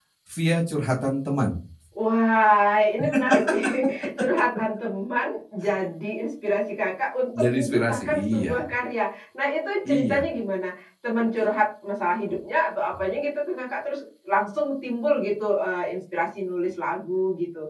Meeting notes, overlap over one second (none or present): present